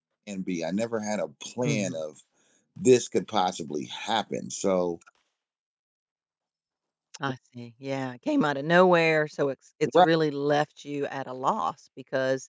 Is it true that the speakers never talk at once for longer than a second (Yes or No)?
Yes